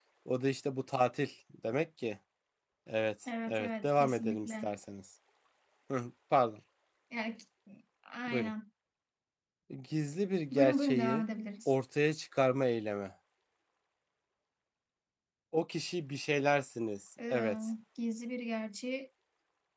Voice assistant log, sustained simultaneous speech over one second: present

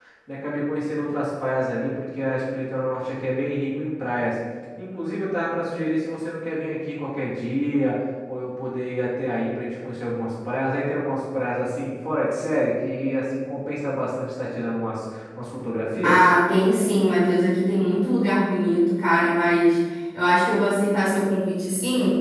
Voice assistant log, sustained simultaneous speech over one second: none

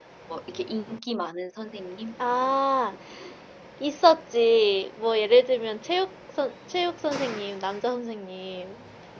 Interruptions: none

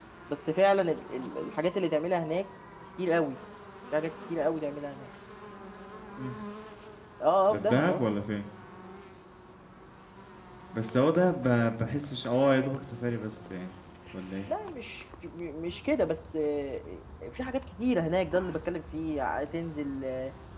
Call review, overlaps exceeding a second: none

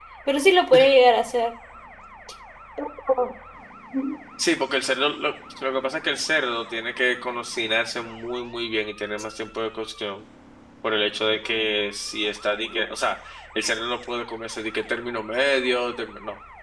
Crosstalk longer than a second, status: none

